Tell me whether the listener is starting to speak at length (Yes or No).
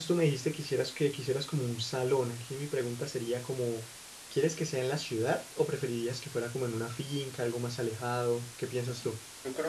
Yes